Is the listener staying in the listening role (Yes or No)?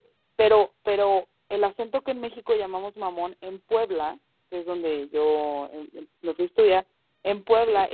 Yes